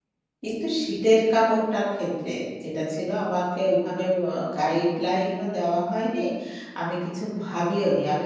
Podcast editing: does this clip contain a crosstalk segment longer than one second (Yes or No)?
No